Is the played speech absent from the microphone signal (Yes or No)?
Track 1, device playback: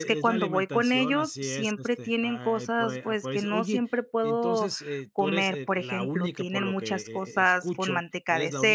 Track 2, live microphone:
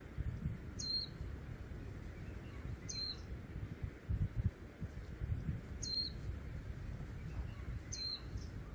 Yes